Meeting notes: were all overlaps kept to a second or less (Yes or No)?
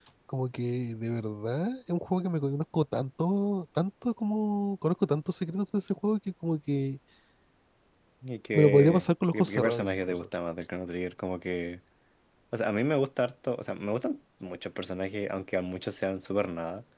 No